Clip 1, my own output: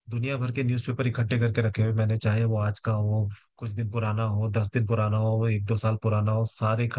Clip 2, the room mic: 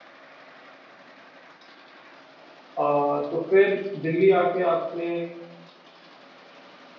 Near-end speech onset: 3 s

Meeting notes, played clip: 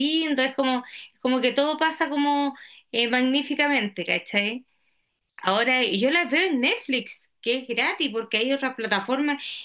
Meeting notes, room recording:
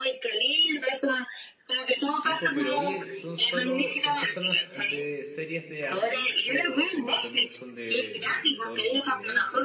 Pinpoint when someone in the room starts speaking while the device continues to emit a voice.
2 s

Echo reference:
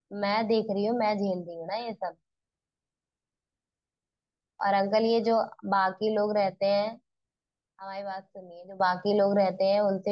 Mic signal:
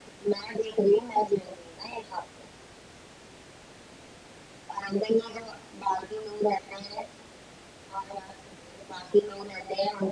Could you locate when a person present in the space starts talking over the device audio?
none

